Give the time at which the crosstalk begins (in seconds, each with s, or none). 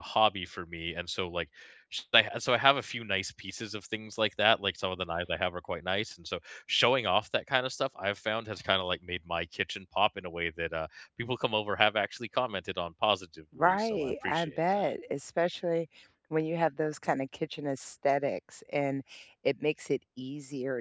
13.6 s